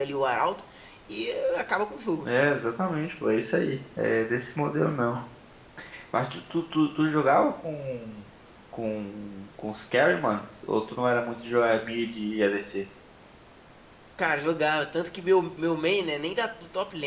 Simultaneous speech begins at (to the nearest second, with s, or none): none